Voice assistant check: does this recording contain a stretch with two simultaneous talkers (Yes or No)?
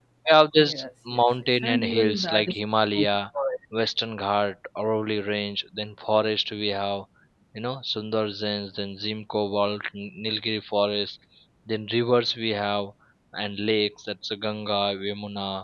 Yes